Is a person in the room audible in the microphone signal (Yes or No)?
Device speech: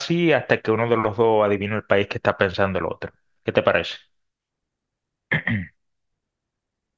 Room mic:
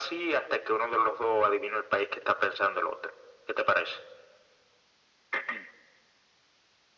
No